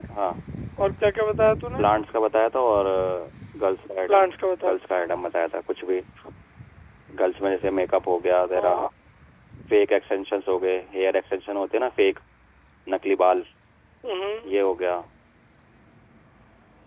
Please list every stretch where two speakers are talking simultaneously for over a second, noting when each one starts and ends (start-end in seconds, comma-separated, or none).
none